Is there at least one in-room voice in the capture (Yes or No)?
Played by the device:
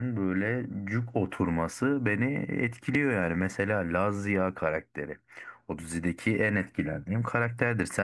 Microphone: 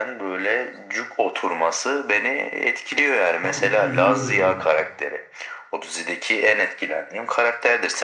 Yes